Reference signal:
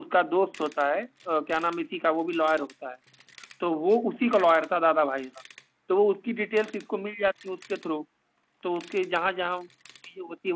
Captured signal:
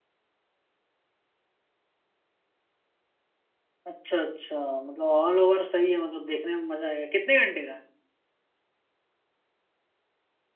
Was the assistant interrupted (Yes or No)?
Yes